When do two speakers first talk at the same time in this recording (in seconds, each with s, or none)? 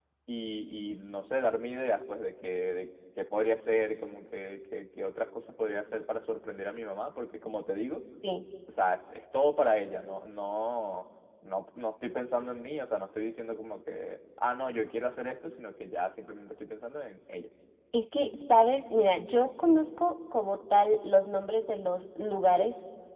none